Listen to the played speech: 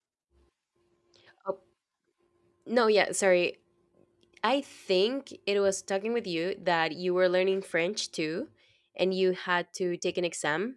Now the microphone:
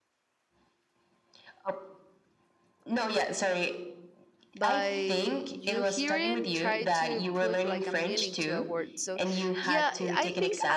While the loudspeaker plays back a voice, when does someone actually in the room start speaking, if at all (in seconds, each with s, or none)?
4.5 s